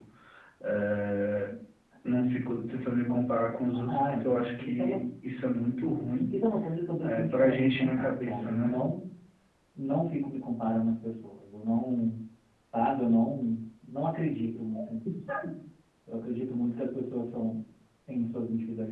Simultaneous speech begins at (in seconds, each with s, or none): 3.7 s